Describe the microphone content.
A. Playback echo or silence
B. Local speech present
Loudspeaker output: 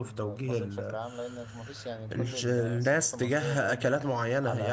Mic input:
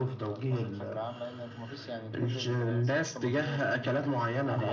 A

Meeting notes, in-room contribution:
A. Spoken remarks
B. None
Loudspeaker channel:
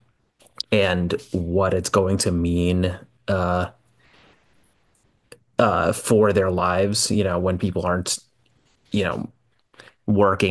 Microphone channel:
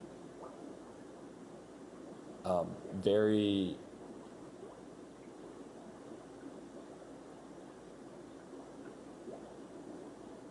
A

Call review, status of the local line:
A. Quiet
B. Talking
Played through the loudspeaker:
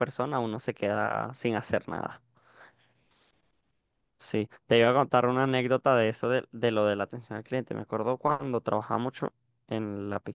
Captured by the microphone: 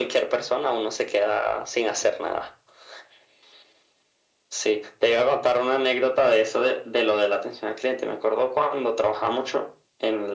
A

